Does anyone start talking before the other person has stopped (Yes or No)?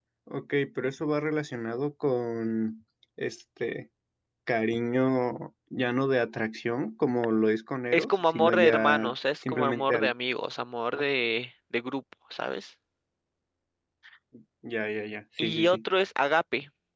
Yes